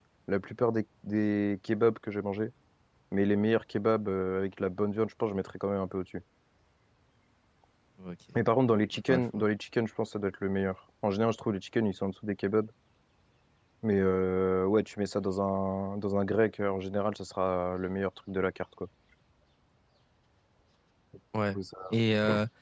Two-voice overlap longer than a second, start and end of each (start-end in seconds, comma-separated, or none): none